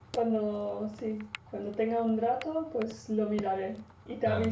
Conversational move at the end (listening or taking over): taking over